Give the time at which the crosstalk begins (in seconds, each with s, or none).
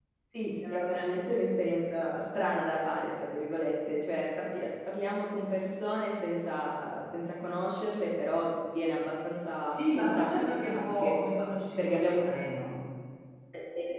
9.7 s